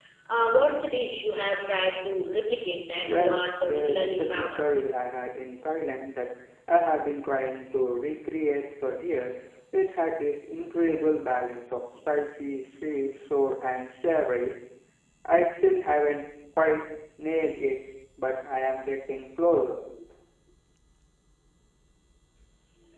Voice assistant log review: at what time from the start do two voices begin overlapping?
3 s

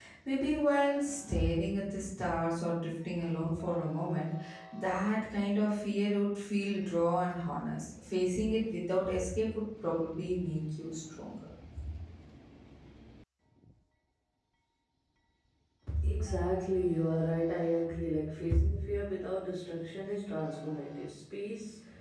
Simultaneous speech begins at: none

